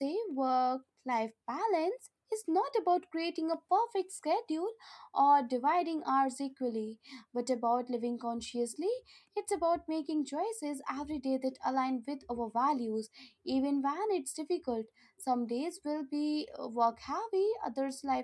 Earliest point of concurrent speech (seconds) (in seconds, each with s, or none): none